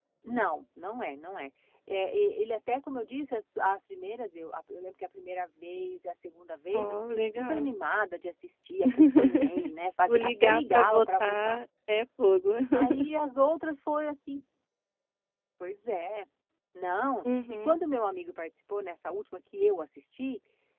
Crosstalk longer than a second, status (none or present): present